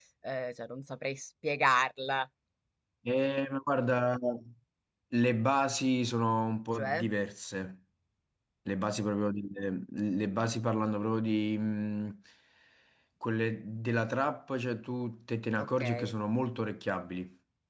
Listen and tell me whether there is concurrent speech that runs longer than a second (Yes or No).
No